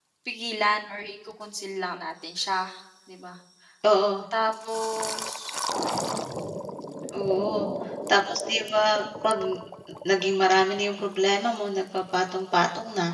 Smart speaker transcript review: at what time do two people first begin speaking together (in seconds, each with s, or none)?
none